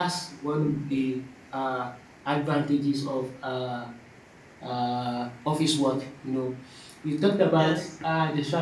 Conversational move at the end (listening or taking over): listening